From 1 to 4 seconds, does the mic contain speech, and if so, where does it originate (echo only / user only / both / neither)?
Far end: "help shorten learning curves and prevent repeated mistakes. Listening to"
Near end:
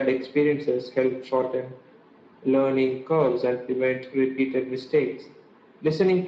echo only